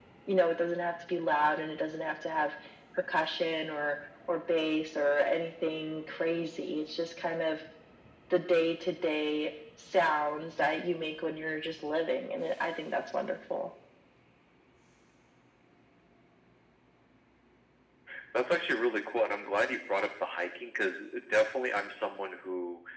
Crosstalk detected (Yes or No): No